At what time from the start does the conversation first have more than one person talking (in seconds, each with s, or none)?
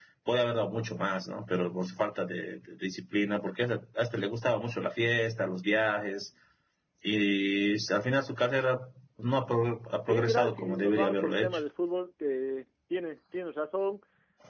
10.1 s